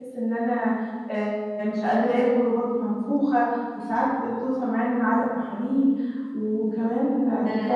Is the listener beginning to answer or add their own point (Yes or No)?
No